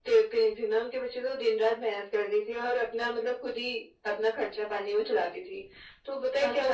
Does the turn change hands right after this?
No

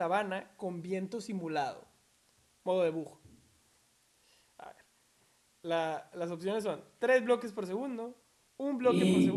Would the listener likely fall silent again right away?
Yes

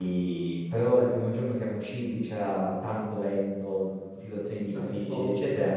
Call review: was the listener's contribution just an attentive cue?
Yes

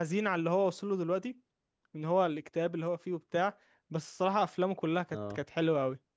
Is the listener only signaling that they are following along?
Yes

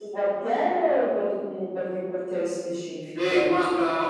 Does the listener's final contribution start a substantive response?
Yes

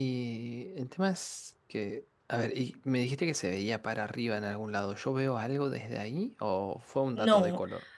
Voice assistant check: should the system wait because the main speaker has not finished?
No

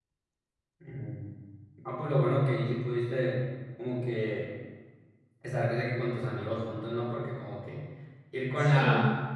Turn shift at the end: No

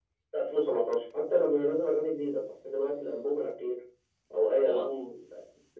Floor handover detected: No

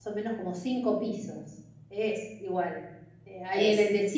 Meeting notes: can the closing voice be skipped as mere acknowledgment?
Yes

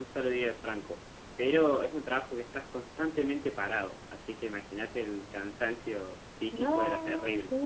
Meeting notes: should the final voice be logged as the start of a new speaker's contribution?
Yes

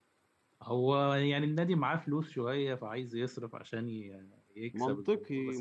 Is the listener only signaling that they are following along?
No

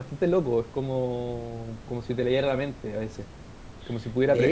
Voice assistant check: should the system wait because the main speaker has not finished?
Yes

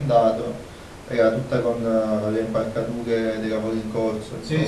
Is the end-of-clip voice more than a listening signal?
Yes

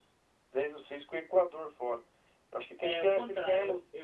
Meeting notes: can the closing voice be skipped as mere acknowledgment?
No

